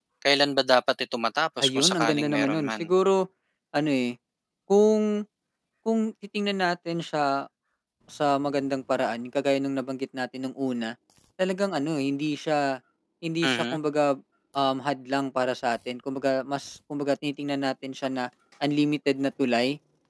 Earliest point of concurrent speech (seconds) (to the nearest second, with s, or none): 2 s